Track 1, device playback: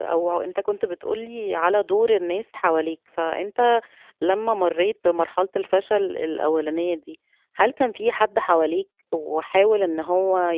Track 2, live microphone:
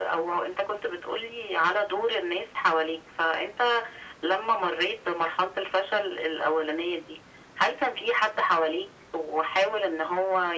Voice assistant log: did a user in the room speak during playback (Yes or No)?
No